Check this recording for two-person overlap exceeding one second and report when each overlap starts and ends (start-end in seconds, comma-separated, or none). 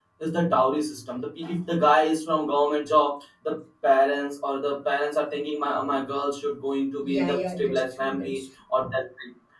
7.0-8.4